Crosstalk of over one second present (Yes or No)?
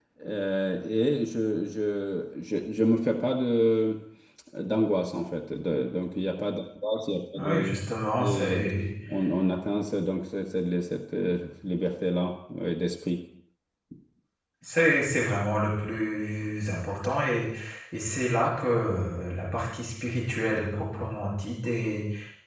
No